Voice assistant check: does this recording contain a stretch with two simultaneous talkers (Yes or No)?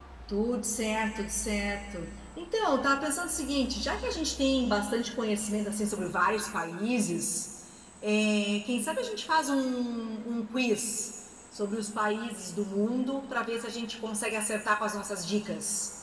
No